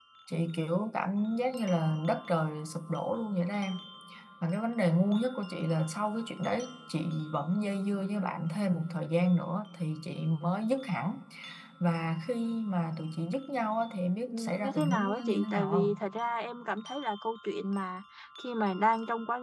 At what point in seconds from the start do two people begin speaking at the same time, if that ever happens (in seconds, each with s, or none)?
14.3 s